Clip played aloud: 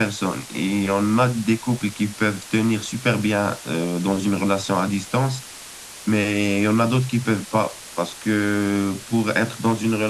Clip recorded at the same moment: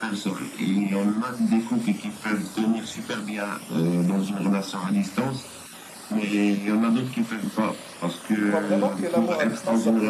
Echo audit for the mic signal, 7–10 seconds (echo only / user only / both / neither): both